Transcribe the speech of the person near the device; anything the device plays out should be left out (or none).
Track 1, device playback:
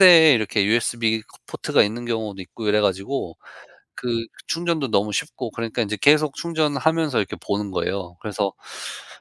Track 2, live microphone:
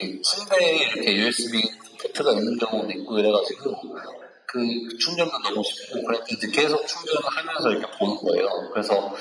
none